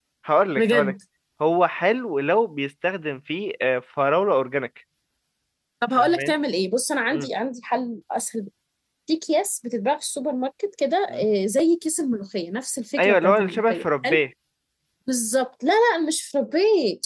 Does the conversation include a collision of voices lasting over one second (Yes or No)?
Yes